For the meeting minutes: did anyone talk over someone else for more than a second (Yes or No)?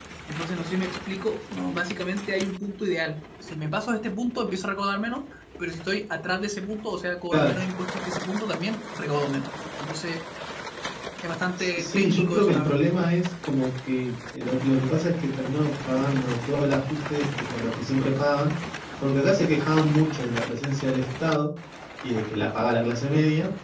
Yes